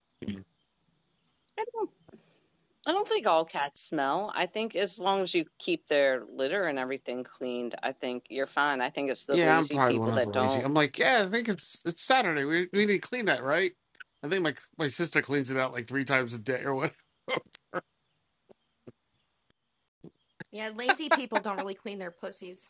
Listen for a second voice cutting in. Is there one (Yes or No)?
Yes